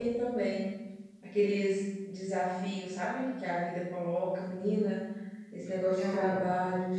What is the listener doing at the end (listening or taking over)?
listening